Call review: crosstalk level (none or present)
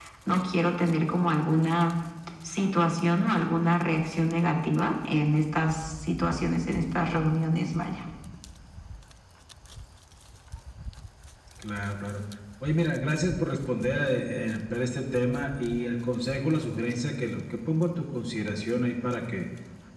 none